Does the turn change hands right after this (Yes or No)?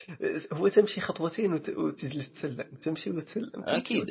Yes